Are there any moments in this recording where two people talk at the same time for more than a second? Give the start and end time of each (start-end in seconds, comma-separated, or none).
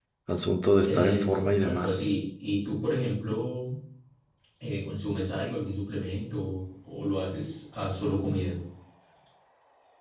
0.9-2.1